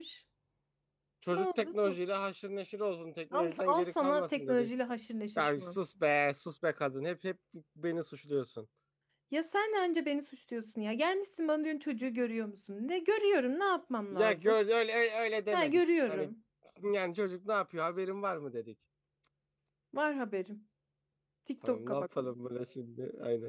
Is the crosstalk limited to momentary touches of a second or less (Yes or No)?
No